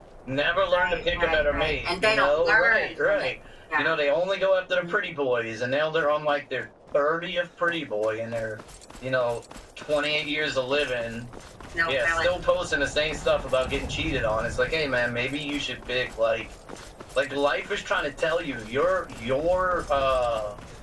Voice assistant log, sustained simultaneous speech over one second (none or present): present